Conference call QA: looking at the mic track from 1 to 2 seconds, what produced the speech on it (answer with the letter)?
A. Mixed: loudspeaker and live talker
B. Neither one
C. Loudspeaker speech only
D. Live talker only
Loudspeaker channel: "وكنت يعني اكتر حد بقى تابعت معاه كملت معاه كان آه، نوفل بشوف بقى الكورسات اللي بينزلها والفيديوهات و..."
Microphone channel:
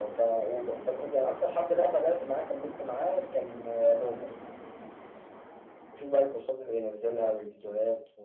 C